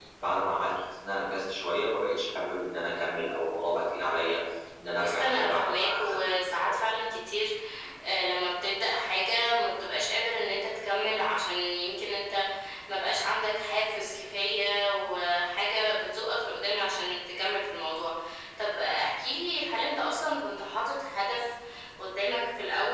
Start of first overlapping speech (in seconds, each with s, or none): 5.0 s